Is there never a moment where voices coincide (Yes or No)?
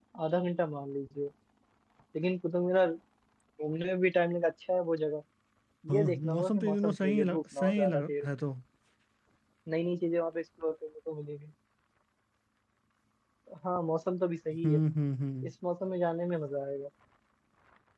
No